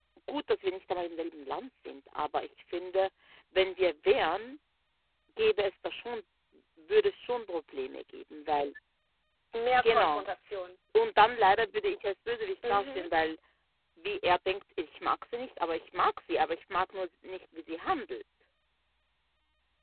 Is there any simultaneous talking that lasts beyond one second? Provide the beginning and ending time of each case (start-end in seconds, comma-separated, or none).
none